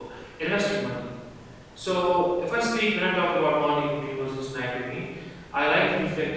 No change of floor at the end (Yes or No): Yes